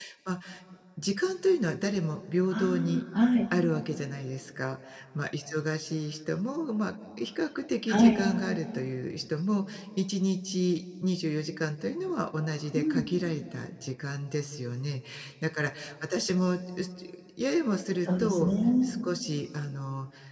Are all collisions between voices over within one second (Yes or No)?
Yes